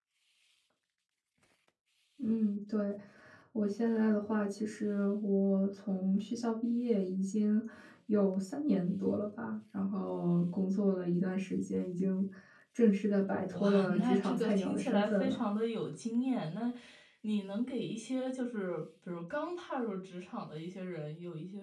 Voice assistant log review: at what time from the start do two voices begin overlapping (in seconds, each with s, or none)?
13.5 s